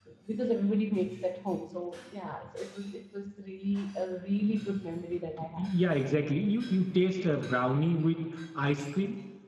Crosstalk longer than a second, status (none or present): none